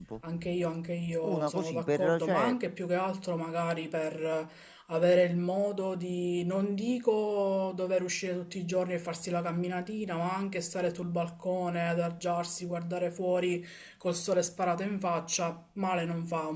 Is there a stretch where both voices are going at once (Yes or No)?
Yes